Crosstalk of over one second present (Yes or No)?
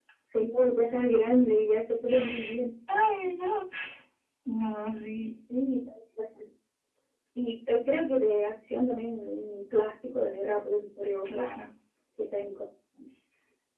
No